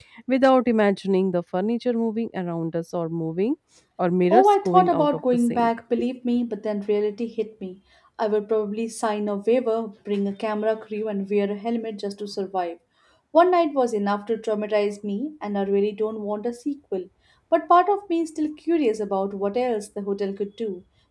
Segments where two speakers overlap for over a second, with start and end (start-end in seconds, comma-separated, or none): 4.3-5.7